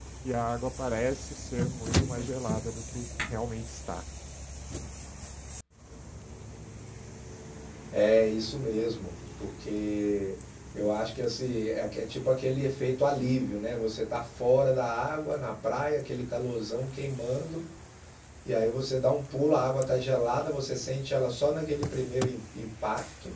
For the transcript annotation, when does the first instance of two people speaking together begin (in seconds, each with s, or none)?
none